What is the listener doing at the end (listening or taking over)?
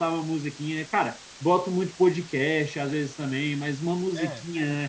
listening